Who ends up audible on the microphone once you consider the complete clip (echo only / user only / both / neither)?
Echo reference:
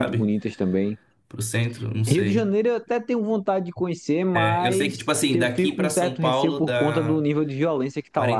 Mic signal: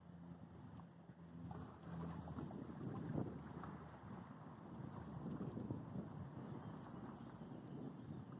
neither